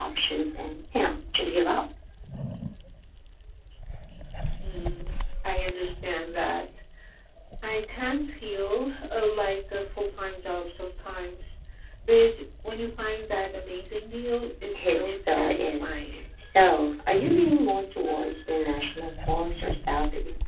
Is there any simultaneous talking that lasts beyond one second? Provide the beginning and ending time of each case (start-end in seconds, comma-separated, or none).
14.7-16.0